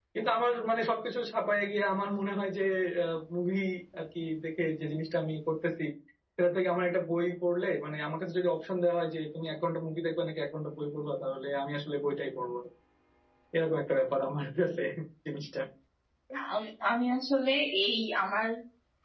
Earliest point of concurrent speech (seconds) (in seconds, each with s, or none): none